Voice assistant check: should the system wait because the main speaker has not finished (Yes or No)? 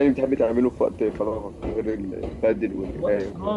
No